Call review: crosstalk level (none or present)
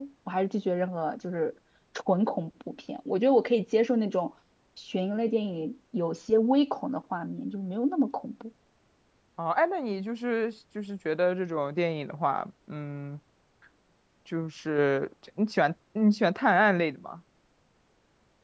none